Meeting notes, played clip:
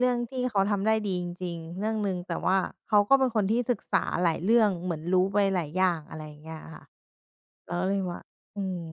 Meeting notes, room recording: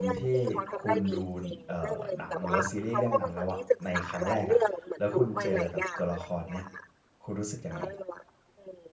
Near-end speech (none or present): present